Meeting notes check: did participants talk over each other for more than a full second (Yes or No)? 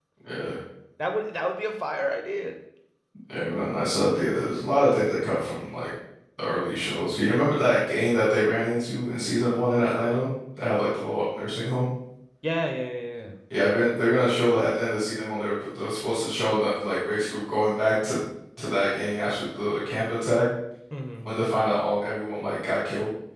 No